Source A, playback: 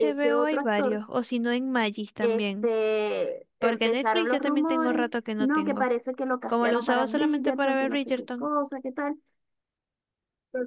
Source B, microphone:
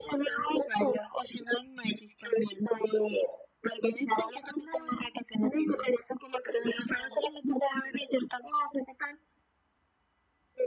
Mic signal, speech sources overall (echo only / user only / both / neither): echo only